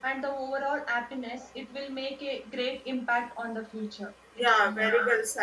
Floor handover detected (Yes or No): Yes